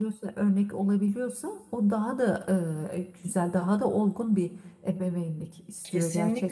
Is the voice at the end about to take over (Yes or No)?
Yes